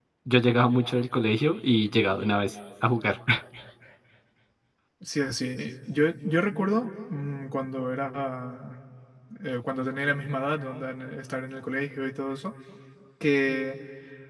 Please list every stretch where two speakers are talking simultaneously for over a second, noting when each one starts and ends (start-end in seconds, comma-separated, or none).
none